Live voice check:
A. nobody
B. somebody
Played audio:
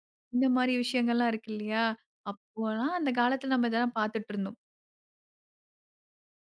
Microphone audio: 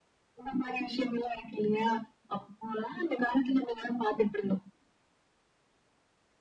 A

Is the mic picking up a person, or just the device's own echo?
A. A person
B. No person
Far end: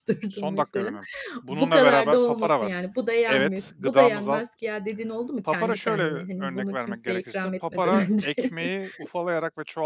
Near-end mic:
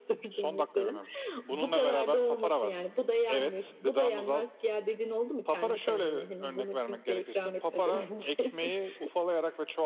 B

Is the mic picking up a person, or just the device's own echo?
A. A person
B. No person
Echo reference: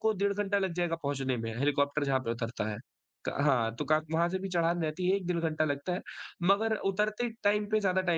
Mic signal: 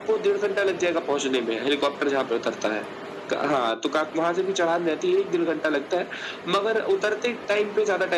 B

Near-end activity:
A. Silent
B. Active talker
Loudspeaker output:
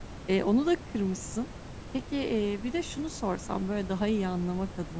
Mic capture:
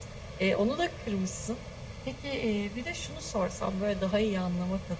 A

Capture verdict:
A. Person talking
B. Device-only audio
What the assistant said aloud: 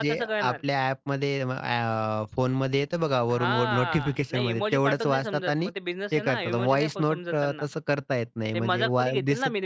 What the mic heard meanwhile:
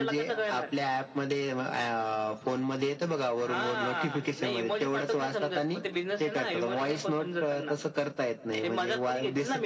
B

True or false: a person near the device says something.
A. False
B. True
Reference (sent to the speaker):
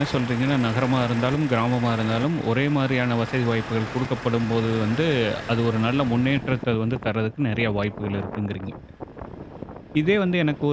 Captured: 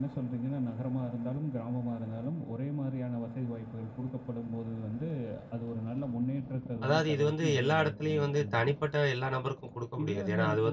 B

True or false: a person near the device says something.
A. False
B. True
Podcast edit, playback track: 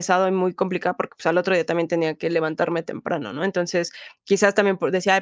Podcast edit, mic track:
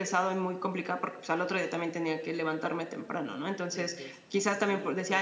B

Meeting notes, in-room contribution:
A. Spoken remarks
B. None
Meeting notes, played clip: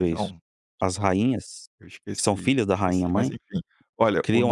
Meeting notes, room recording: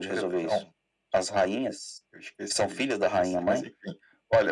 B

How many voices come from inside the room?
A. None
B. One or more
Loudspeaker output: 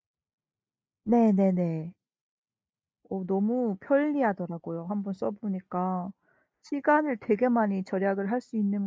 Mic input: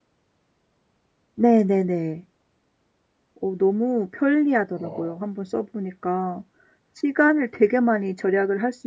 B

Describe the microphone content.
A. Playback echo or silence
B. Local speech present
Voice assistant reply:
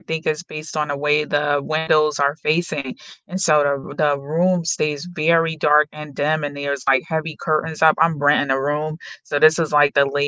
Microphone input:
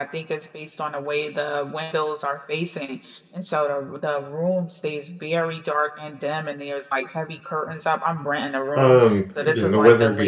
B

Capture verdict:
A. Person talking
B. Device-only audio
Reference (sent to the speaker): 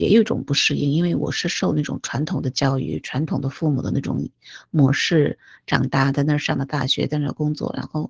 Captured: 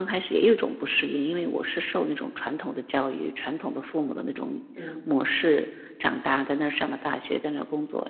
A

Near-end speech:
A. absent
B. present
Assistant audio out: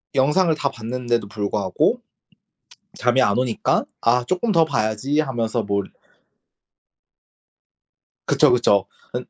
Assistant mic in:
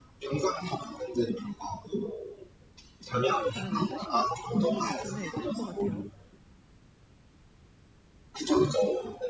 B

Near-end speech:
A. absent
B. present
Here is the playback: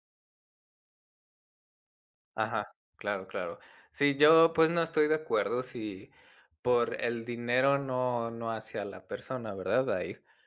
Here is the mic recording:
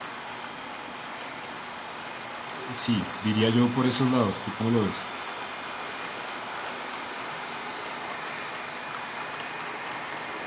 B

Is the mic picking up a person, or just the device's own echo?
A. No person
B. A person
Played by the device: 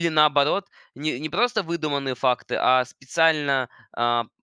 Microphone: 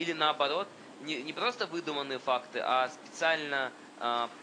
A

